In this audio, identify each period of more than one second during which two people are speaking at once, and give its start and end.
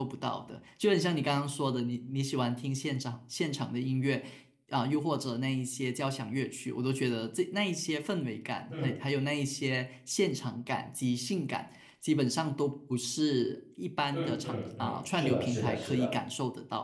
14.1-16.1

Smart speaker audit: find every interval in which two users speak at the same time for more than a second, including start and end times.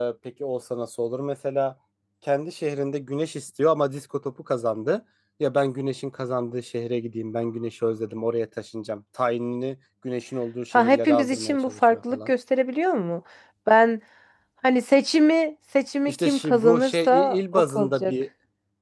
10.7-12.3, 16.0-18.1

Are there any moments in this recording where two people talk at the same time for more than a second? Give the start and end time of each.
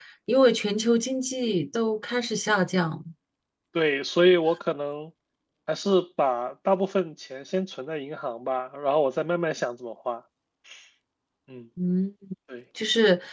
none

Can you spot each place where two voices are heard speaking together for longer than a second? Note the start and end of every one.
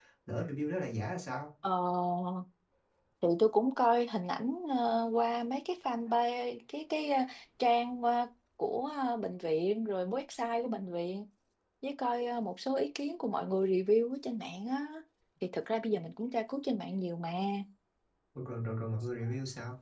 none

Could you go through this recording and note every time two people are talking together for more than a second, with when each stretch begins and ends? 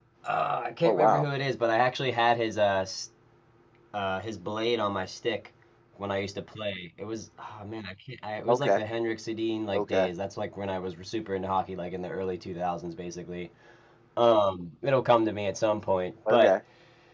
none

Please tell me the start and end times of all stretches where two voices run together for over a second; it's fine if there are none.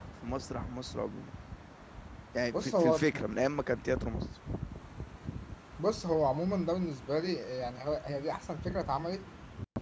none

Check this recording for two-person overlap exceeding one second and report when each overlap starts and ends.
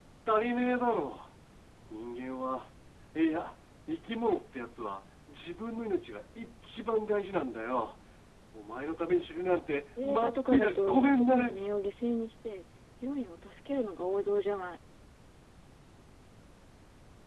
10.0-11.6

